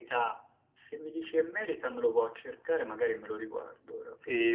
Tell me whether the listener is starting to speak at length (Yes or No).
Yes